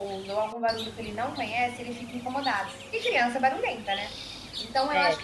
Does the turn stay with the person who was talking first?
Yes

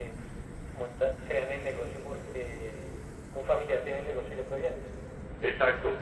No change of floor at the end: Yes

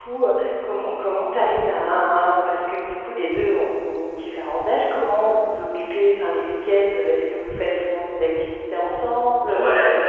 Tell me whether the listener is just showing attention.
No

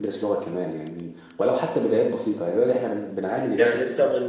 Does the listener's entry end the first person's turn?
Yes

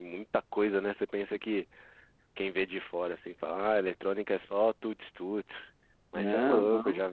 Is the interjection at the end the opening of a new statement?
No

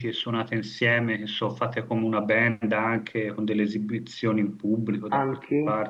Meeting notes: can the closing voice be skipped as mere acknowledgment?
No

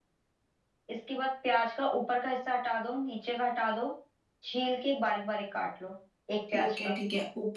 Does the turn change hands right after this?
Yes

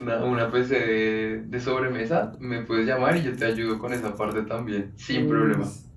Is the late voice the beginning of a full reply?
Yes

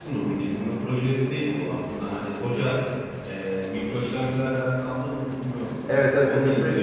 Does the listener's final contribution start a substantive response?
Yes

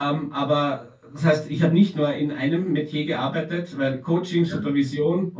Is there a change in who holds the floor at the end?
No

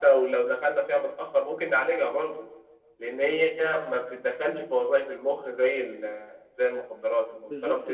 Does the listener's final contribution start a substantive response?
Yes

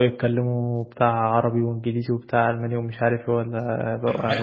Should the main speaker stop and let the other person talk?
Yes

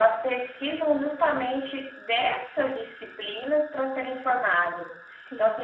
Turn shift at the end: No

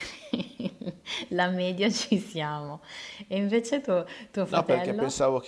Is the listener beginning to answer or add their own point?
Yes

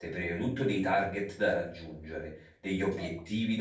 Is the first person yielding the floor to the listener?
No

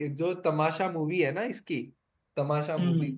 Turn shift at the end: No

